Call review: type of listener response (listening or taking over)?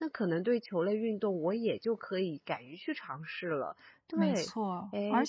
taking over